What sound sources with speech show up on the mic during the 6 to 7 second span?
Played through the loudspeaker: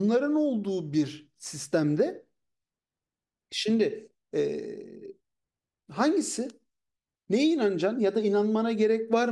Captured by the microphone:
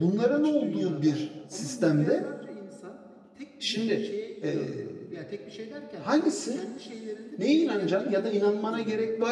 both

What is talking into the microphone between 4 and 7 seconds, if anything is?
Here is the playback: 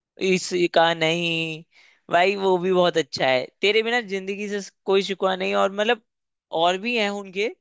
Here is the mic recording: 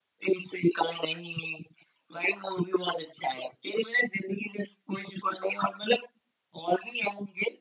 echo only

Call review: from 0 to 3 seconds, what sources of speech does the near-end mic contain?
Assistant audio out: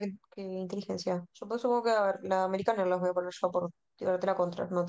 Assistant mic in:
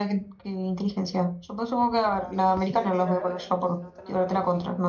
both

